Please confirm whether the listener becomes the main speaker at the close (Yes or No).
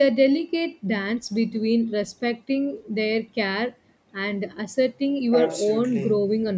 Yes